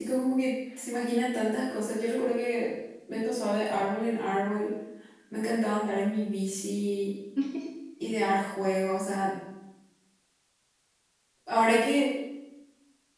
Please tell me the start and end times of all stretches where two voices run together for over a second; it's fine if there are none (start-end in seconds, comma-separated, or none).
none